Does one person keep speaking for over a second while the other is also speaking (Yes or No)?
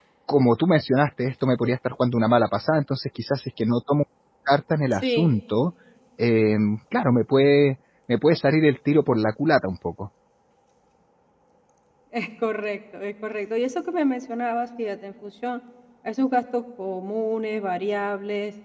No